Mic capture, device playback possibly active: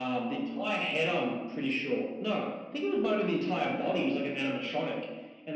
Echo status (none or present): present